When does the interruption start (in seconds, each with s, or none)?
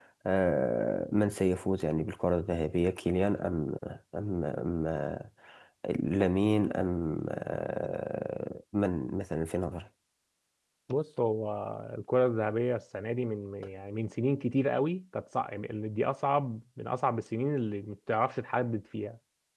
none